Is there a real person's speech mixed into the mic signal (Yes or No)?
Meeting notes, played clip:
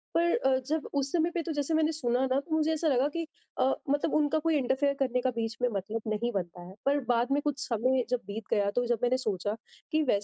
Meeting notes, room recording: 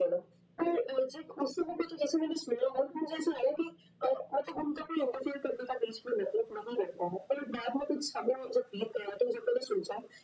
No